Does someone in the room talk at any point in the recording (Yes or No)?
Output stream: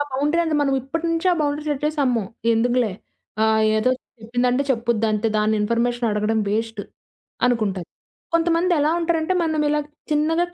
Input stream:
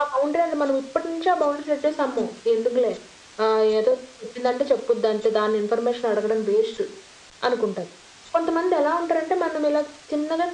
No